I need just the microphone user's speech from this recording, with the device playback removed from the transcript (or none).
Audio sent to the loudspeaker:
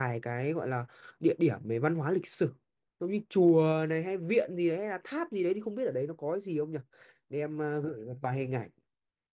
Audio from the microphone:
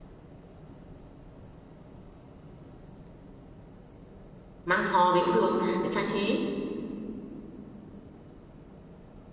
mang sò về cũng được để trang trí.